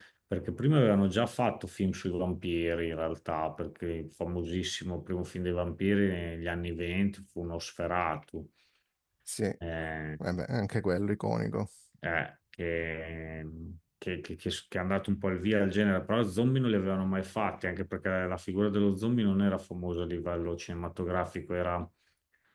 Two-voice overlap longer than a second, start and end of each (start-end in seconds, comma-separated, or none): none